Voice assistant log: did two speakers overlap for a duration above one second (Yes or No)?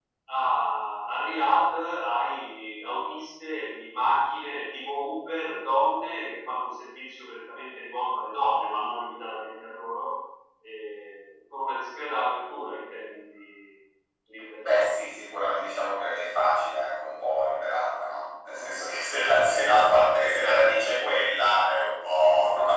No